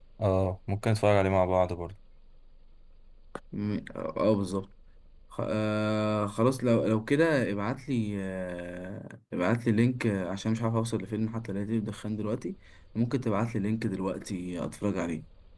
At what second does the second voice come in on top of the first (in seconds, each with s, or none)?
none